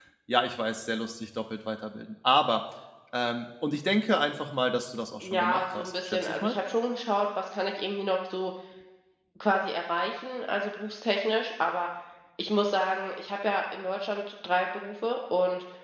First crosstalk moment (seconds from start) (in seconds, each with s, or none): 5.2 s